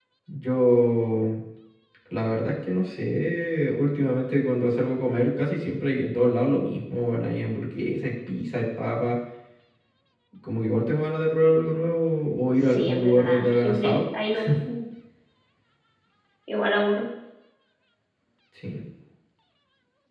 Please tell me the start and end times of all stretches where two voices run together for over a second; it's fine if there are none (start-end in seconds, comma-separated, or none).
12.6-14.0